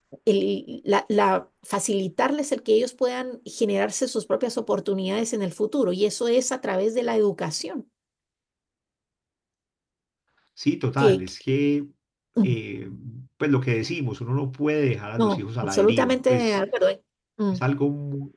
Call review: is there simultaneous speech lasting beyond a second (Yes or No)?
Yes